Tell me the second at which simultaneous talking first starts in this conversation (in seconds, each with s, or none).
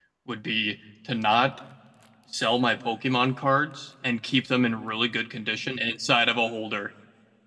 none